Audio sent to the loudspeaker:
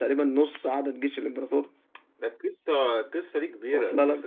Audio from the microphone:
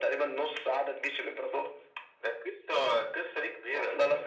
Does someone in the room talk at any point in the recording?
No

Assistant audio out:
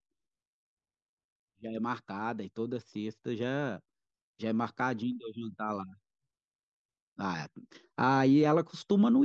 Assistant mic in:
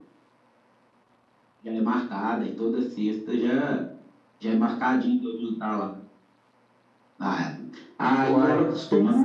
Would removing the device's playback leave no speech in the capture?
No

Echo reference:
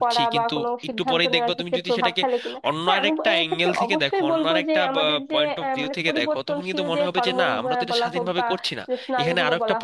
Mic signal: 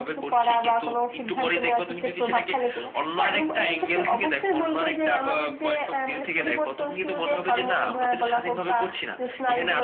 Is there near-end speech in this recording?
No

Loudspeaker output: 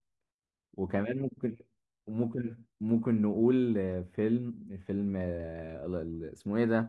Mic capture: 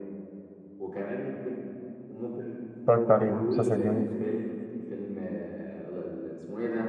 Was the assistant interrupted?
Yes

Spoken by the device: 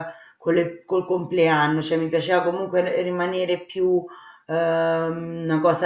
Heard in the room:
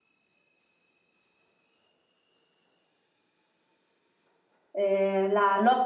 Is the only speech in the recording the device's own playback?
No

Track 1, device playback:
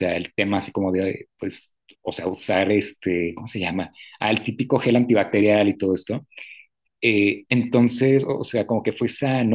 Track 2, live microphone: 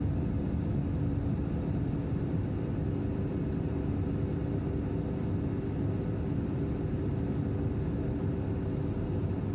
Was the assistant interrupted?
No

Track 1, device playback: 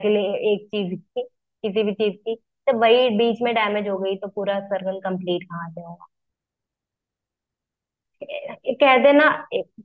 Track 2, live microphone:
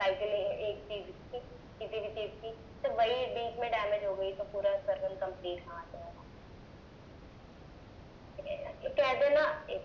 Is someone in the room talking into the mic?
No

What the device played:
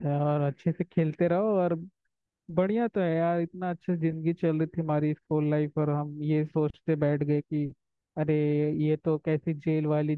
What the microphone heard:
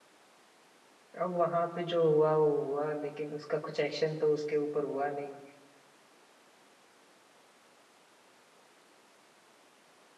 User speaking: Yes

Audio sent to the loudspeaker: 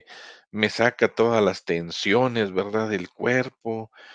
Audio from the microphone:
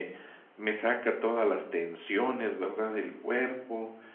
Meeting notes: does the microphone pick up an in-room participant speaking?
No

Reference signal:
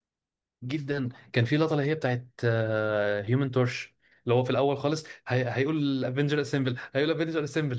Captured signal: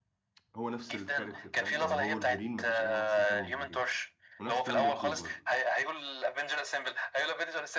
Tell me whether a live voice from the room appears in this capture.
Yes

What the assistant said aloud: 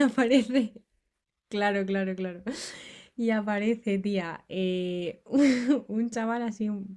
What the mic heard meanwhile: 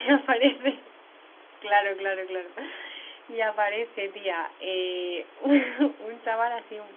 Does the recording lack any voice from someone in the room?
Yes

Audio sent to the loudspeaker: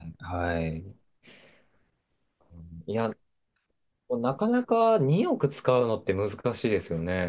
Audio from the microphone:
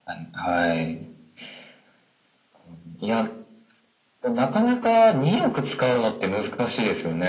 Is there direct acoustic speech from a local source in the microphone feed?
No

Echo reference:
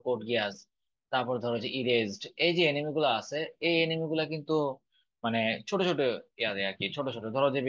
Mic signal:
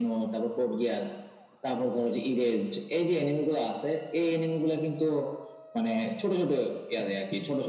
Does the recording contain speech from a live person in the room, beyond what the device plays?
No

